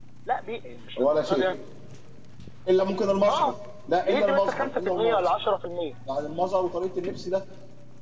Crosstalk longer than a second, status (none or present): present